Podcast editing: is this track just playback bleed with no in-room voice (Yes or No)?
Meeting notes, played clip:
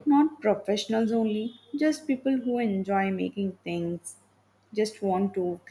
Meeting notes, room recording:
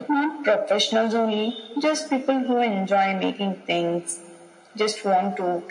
Yes